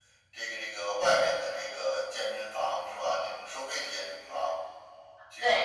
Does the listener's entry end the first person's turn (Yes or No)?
Yes